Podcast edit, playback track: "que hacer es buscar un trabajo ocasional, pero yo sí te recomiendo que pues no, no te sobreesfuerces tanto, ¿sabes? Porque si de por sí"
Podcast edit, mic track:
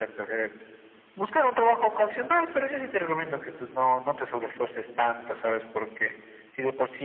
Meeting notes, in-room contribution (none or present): none